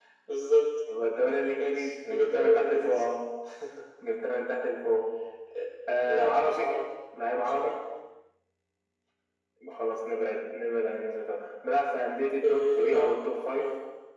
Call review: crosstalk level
present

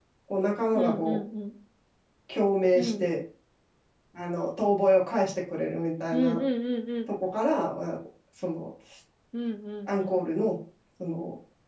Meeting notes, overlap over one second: none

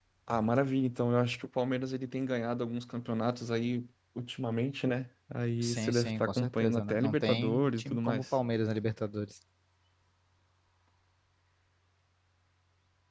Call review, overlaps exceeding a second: present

